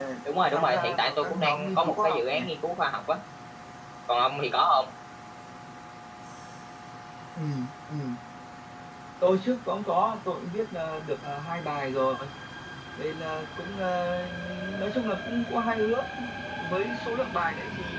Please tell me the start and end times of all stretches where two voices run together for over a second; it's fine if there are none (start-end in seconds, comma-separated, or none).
0.5-2.4